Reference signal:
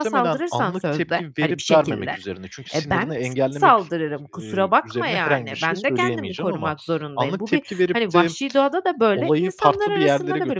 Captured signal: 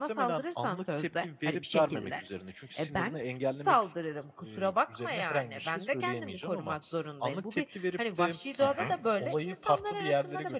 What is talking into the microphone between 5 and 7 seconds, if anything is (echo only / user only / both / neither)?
echo only